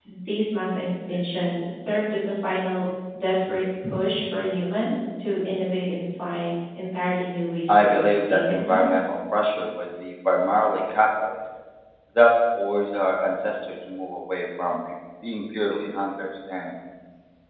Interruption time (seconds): 7.7 s

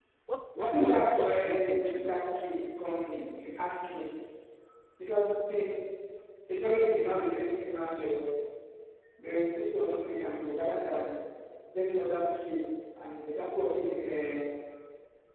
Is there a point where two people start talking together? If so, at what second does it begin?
0.6 s

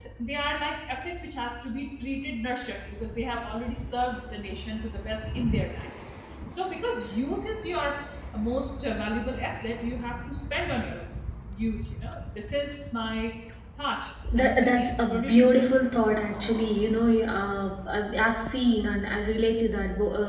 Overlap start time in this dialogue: 14.4 s

